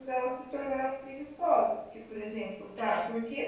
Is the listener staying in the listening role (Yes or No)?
Yes